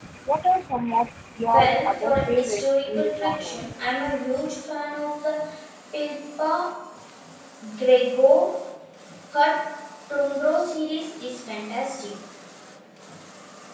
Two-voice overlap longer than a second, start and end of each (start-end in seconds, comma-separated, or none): 1.4-3.7